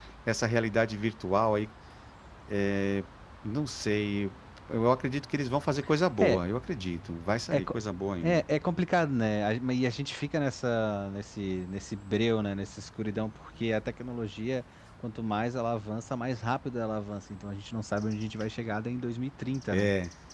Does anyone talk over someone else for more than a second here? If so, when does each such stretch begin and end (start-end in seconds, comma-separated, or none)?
none